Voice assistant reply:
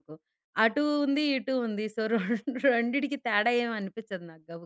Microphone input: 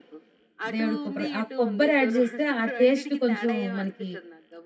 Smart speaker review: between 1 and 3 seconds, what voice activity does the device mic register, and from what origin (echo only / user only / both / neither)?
both